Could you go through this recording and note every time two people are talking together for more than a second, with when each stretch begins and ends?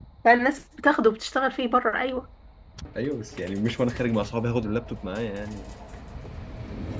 none

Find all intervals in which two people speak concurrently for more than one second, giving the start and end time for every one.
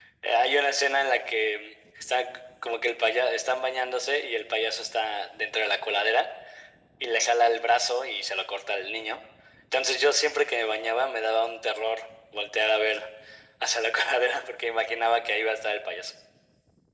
none

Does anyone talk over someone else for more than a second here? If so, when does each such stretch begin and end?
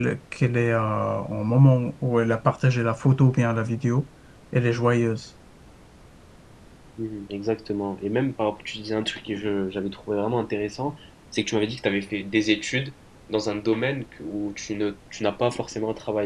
none

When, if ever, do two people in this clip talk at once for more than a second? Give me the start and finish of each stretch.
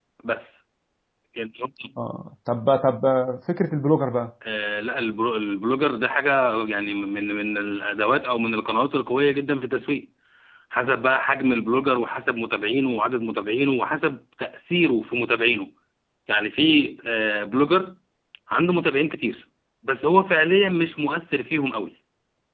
none

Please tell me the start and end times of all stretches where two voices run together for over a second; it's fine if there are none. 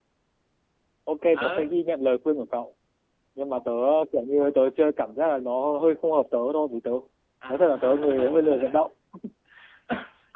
7.5-8.8

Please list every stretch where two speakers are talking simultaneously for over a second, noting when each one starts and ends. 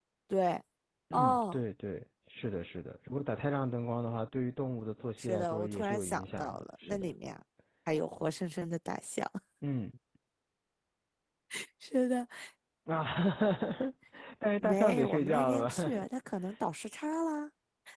5.2-7.0, 14.6-15.9

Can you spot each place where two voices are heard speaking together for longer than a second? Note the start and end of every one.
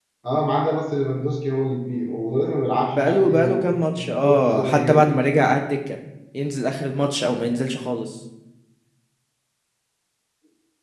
2.9-5.0

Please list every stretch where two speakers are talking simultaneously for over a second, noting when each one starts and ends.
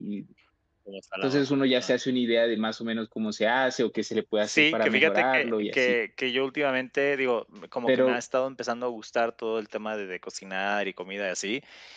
4.5-5.9

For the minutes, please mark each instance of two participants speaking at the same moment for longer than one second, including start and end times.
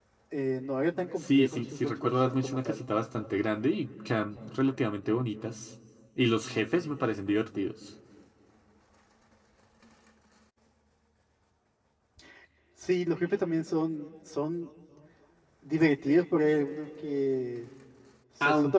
1.2-2.8

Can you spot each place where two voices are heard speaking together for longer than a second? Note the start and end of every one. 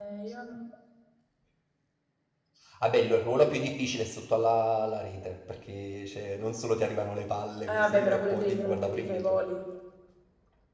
7.7-9.4

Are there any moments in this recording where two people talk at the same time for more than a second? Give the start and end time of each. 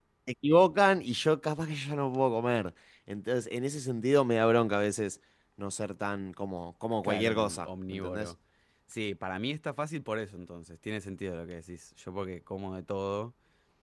7.0-8.3

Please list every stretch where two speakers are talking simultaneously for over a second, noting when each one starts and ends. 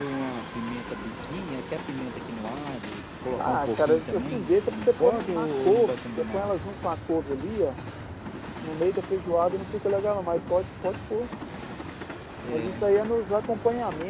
3.4-6.5

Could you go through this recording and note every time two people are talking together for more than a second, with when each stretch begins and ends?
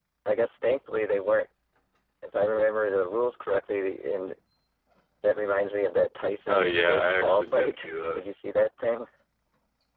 6.5-8.2

